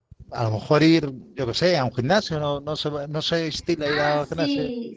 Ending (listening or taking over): taking over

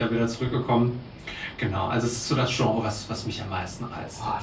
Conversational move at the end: taking over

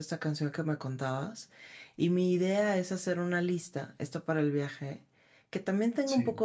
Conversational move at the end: listening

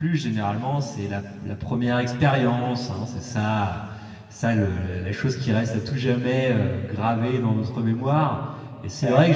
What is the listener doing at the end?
listening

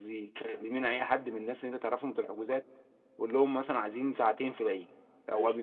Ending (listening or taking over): listening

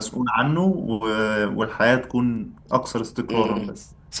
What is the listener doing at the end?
taking over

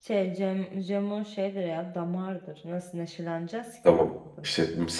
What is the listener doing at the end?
taking over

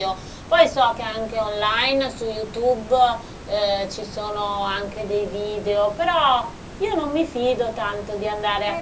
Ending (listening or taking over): taking over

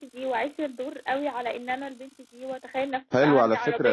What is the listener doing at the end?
taking over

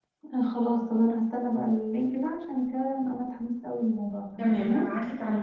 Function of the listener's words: taking over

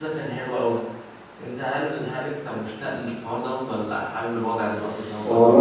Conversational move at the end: taking over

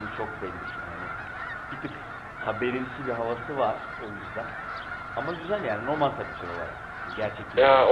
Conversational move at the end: taking over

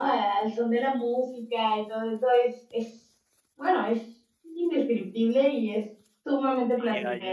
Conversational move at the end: taking over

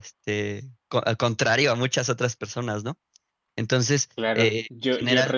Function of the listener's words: taking over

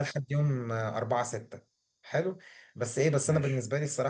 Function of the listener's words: listening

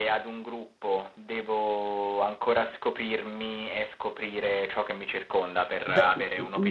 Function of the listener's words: taking over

